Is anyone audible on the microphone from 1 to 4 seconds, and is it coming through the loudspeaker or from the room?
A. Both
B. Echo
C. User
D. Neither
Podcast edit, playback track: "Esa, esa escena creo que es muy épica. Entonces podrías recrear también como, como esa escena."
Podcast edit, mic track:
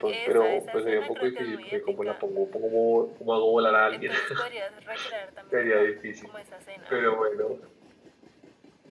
A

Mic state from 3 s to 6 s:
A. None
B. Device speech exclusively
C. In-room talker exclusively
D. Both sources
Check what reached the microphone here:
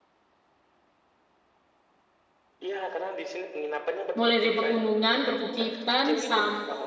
D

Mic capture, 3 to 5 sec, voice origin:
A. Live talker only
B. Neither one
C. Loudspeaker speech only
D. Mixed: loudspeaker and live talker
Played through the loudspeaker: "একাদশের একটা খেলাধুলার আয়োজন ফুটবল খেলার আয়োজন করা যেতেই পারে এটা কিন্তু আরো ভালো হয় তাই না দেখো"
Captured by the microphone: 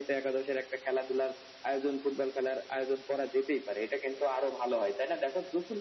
C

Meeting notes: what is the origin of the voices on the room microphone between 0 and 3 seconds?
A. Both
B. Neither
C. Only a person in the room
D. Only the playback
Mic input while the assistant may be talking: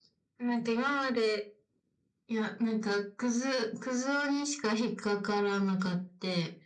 D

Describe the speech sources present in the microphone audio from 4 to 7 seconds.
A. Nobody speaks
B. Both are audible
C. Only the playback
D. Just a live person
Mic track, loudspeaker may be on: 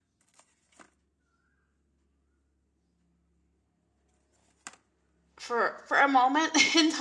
D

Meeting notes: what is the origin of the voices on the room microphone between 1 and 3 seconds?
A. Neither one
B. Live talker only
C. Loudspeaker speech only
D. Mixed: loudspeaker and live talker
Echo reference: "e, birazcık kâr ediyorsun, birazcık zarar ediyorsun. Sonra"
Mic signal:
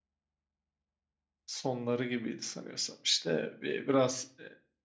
B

